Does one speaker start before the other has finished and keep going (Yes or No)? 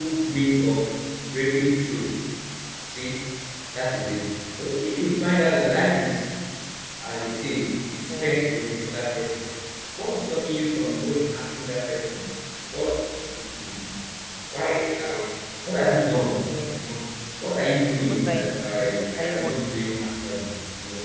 Yes